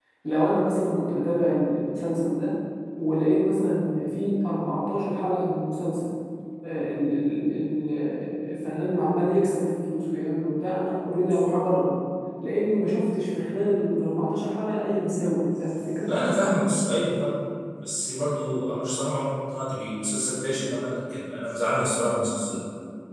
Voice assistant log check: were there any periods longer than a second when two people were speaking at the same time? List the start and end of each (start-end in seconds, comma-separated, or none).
none